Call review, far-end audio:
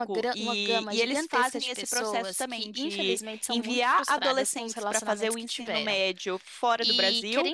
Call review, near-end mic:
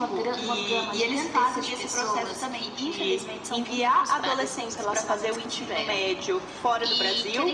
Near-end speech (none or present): none